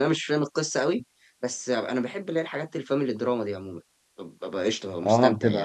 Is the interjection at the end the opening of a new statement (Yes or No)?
Yes